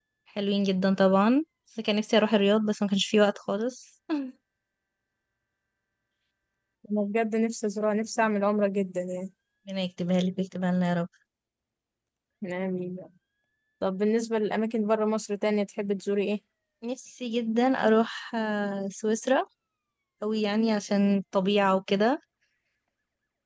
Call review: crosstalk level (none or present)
none